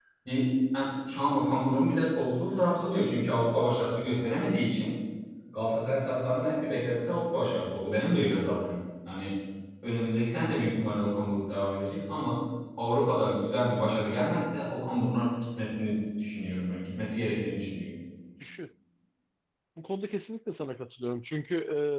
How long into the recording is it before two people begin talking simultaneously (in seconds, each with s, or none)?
none